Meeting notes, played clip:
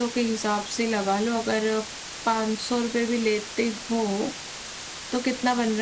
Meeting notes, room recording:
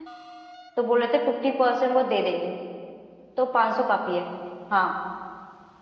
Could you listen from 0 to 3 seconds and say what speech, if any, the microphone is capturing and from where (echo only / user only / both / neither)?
user only